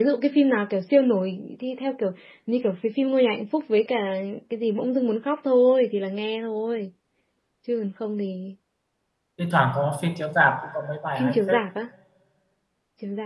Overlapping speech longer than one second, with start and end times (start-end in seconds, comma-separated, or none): none